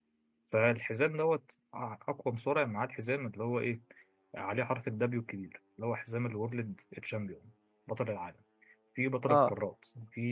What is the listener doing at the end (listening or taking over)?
listening